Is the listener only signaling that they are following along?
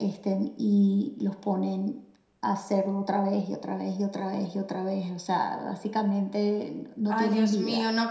No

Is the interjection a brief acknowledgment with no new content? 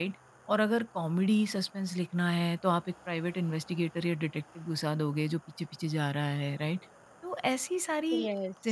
Yes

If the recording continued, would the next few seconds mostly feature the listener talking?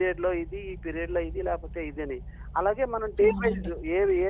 No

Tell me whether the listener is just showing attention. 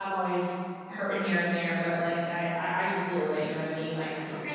No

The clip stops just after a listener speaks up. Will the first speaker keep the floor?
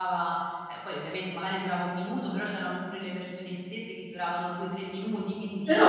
No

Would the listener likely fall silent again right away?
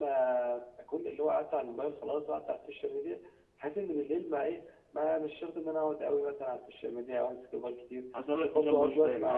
No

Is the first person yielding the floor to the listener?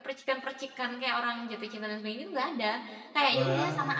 No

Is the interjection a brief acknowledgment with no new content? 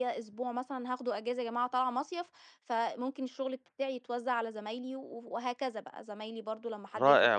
No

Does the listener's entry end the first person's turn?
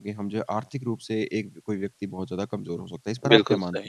Yes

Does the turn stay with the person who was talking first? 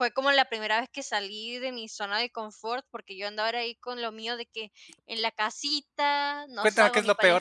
No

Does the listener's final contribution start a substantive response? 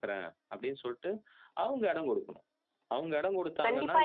Yes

